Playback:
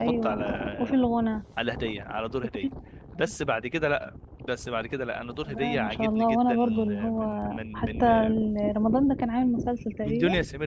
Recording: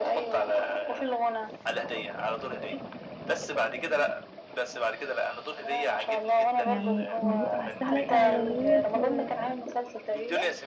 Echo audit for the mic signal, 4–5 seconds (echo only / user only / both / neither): echo only